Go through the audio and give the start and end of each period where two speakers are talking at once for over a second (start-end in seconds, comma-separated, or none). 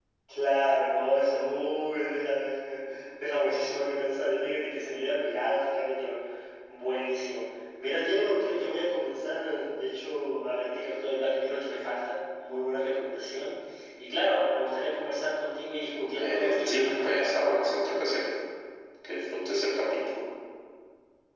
16.1-17.8